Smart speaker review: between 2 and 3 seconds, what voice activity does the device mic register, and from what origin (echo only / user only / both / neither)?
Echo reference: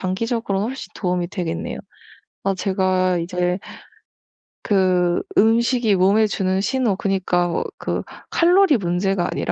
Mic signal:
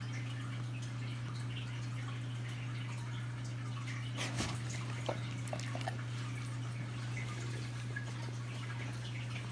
neither